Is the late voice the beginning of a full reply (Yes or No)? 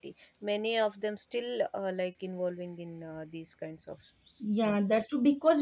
Yes